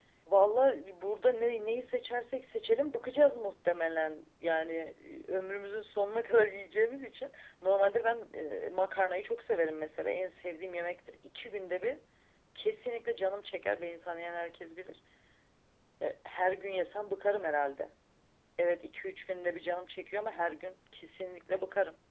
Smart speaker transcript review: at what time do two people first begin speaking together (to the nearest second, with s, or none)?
none